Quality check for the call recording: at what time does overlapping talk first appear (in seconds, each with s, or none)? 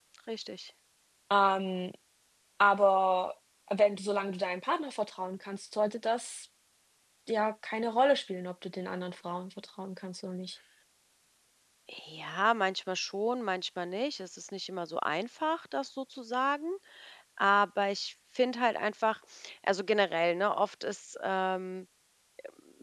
none